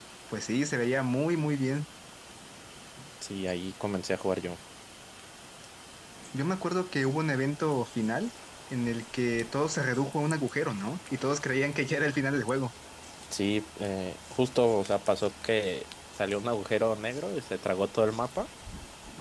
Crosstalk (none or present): none